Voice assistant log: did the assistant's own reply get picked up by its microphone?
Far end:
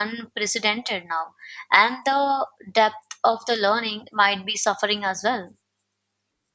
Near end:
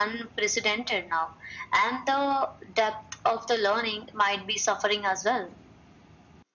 Yes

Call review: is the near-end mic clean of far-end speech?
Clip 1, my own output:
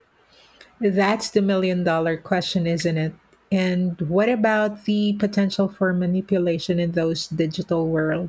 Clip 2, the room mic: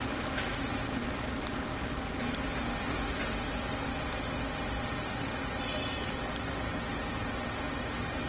Yes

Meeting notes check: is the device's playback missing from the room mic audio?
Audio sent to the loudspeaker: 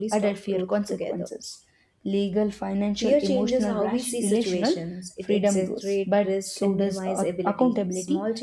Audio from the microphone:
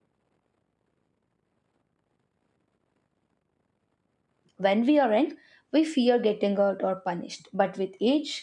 Yes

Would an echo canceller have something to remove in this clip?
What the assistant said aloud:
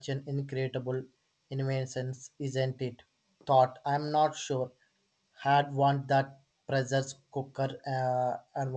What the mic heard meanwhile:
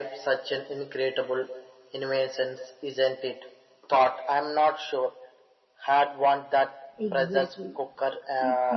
Yes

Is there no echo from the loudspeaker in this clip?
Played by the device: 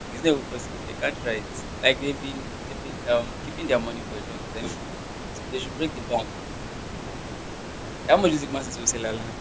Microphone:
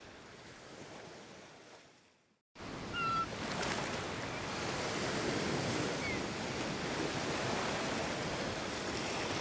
Yes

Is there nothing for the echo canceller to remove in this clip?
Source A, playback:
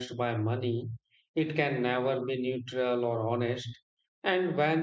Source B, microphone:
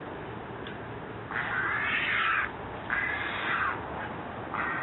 Yes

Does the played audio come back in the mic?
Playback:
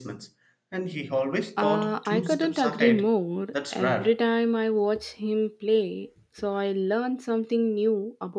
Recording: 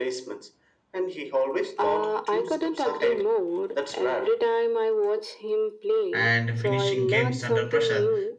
Yes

